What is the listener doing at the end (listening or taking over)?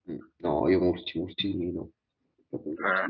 listening